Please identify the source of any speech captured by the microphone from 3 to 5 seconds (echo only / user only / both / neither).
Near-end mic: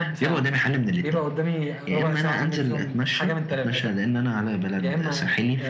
echo only